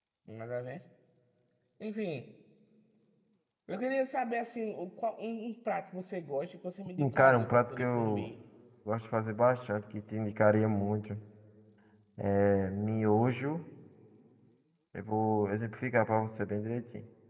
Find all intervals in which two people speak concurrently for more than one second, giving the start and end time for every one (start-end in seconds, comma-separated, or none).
7.0-8.3